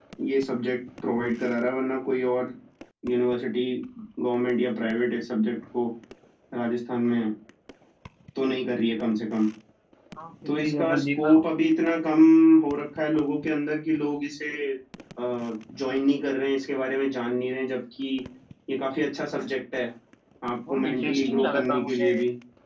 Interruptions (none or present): present